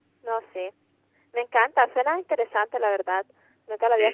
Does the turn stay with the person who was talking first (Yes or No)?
No